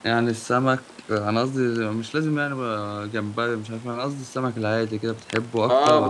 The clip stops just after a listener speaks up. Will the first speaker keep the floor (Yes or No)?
No